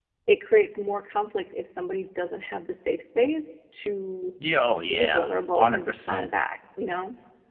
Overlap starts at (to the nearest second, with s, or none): 5 s